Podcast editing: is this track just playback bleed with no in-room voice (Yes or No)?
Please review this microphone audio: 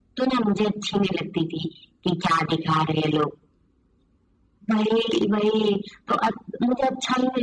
Yes